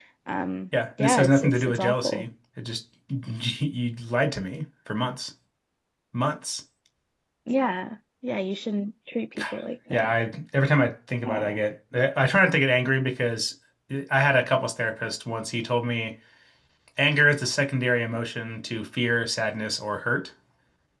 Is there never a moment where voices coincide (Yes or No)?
No